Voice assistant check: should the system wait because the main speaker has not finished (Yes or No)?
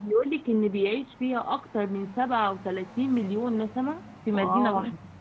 No